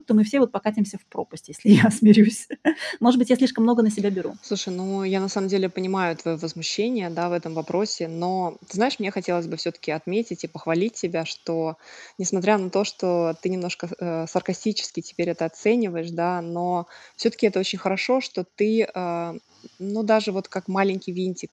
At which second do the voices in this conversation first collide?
none

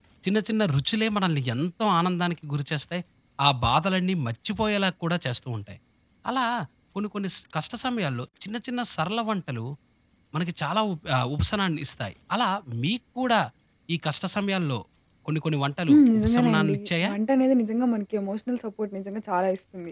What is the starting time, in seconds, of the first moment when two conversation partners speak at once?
15.9 s

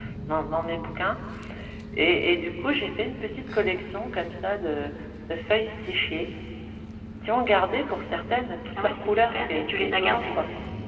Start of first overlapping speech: 8.7 s

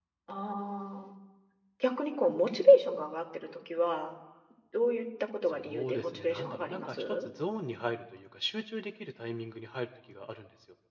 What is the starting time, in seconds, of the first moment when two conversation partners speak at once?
5.5 s

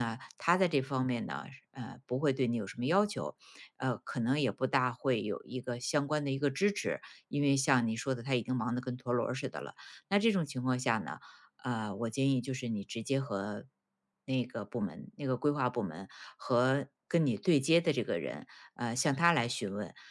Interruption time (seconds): none

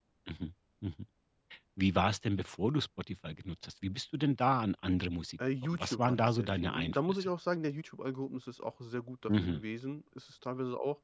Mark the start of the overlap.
5.6 s

